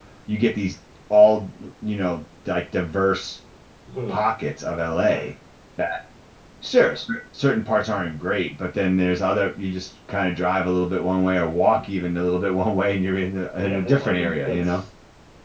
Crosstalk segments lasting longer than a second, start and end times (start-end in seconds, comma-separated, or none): 13.6-14.8